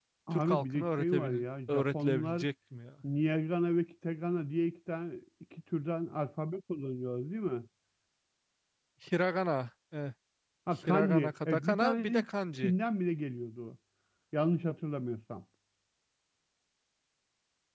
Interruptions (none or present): present